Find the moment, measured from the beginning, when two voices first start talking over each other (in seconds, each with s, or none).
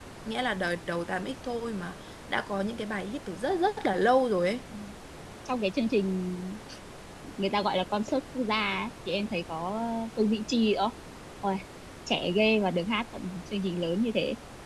none